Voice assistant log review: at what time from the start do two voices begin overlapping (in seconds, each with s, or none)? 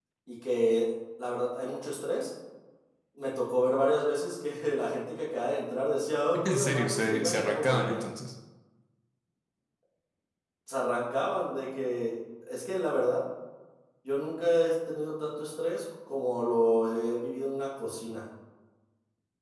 6.3 s